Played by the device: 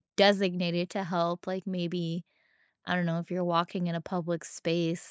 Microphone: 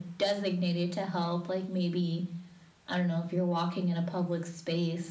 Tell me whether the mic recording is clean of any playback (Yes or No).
No